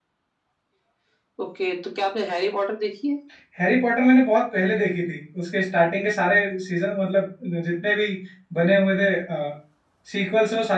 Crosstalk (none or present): none